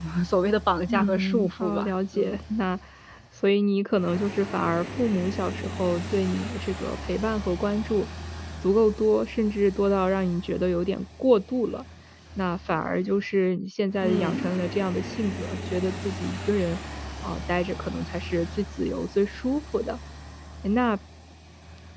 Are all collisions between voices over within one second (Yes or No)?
No